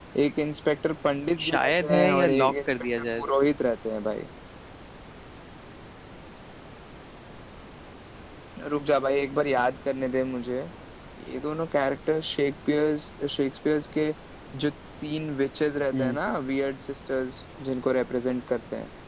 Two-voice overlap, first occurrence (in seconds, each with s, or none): 1.4 s